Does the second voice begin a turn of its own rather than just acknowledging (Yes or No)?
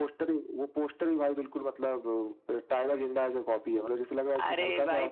Yes